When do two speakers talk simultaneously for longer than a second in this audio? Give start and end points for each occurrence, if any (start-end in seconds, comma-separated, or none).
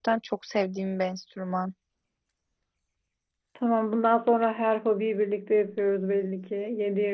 none